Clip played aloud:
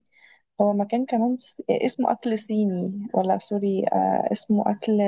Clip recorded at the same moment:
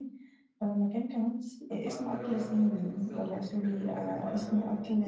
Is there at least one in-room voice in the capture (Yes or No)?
Yes